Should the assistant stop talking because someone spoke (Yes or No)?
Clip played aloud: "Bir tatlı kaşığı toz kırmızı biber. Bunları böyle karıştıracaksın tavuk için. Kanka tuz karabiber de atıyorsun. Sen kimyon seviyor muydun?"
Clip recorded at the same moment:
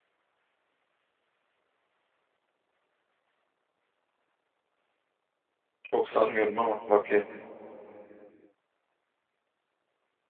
Yes